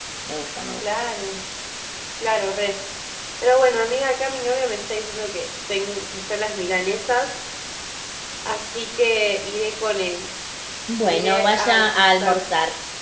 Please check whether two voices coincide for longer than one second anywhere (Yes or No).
Yes